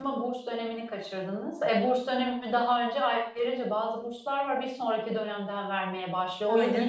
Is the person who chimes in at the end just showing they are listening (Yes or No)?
Yes